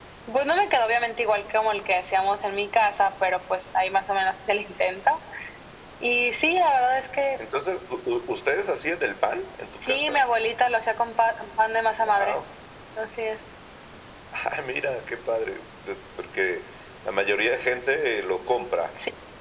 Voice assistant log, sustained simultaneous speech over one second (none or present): none